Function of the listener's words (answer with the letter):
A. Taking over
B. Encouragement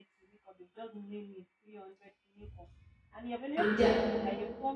B